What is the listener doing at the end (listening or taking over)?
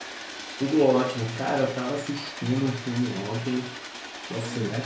listening